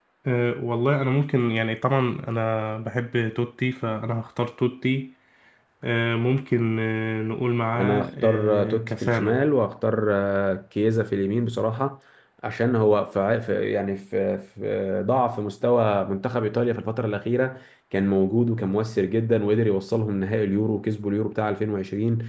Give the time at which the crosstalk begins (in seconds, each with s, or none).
7.8 s